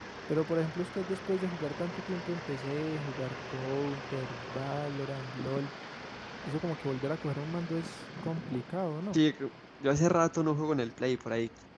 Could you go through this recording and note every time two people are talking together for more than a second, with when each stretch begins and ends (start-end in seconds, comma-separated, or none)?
none